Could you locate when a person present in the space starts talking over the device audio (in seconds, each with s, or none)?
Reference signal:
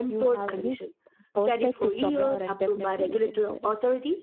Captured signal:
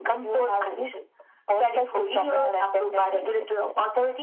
none